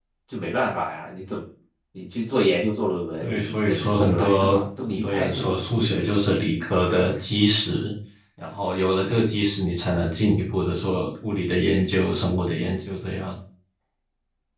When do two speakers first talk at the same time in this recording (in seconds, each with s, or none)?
3.2 s